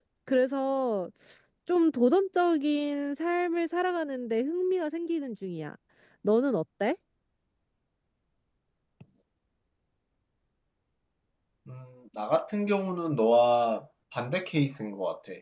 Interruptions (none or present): none